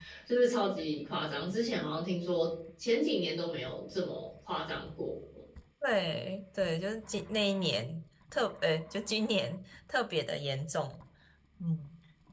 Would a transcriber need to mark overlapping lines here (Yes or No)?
No